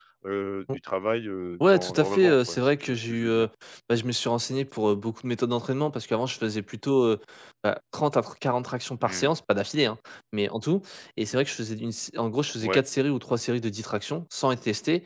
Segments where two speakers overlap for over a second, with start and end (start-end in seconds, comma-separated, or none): 1.6-3.5